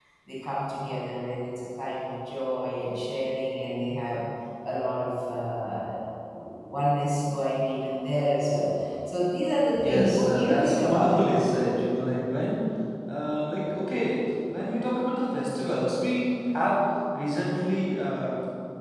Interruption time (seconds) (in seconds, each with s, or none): 9.8 s